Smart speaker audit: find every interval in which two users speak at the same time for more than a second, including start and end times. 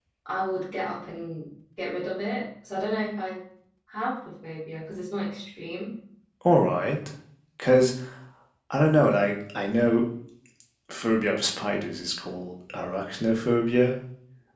none

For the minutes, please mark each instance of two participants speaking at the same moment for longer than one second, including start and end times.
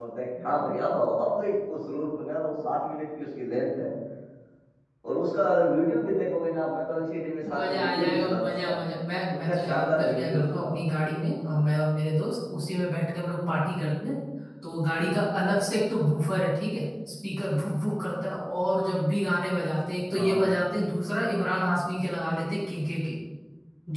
7.6-8.8, 9.4-10.7

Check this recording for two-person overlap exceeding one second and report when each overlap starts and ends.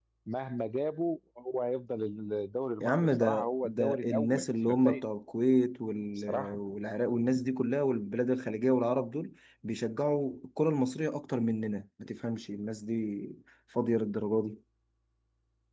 2.8-5.0

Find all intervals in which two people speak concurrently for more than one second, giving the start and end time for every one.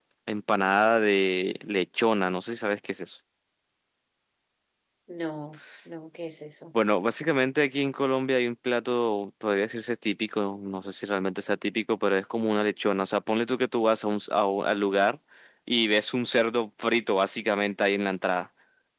none

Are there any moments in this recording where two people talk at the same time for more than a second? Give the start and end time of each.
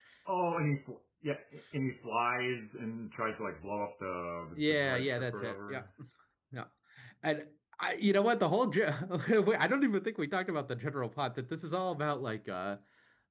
4.5-5.8

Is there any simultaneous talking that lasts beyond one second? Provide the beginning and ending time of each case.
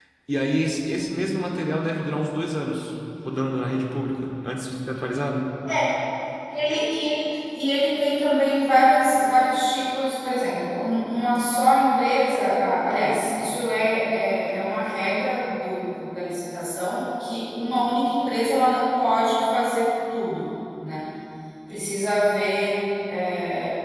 none

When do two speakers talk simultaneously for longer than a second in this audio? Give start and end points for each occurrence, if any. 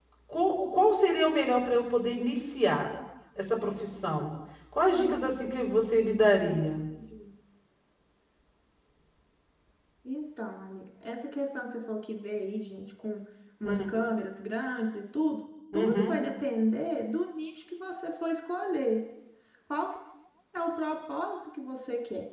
none

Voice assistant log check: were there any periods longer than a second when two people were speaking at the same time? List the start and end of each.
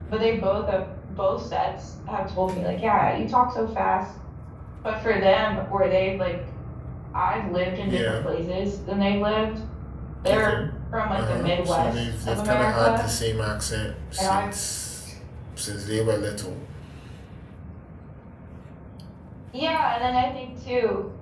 11.1-13.1

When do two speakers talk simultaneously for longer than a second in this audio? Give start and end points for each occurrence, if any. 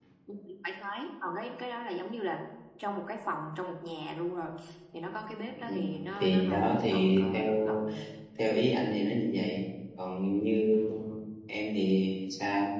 6.2-7.8

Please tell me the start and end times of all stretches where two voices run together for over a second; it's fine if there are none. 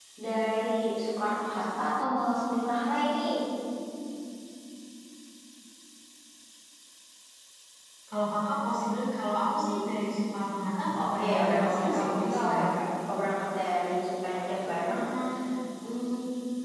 11.0-12.7

